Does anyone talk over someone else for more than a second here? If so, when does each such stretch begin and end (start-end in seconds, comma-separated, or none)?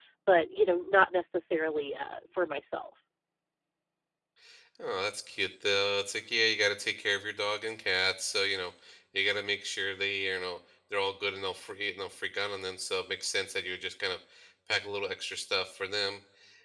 none